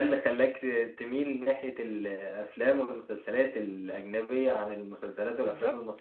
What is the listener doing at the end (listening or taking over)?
taking over